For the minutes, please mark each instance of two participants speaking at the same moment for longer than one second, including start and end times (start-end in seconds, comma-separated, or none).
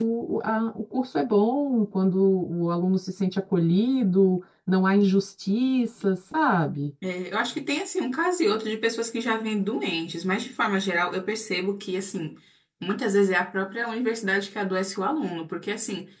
none